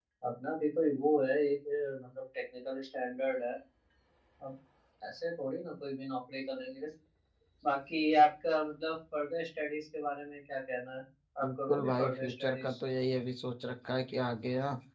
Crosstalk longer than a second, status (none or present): present